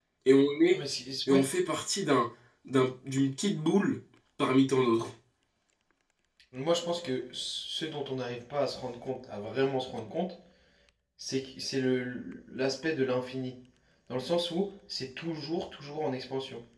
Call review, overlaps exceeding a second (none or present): none